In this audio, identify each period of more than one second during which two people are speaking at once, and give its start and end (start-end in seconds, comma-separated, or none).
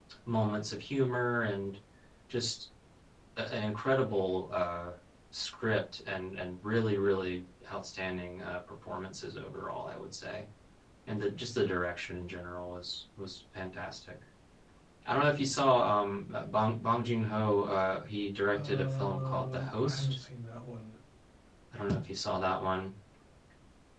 18.5-20.2